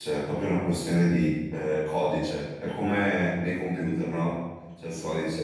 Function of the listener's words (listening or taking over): listening